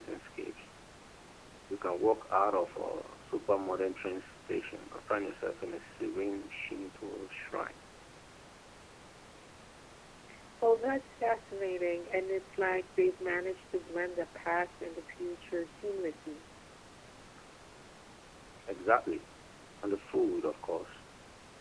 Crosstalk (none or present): none